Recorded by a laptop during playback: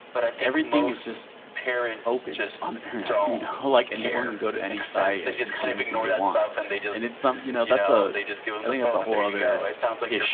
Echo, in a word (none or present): present